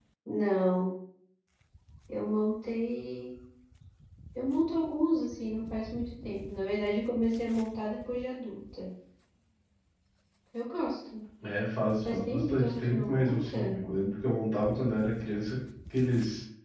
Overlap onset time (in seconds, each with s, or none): 12.1 s